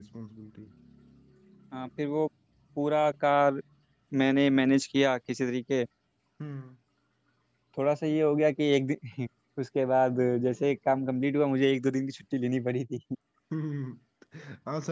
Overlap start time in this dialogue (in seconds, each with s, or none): none